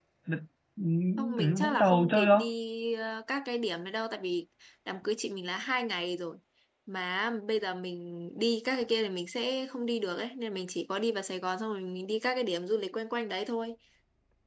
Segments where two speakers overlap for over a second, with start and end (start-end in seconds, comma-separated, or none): 1.2-2.5